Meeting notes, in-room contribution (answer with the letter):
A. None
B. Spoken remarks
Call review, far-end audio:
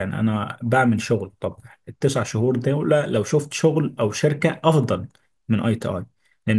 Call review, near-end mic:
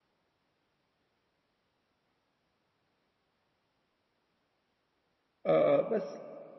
B